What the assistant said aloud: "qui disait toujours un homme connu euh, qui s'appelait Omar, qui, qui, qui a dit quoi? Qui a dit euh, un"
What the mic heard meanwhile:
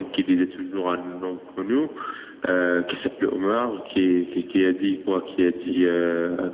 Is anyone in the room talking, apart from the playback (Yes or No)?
No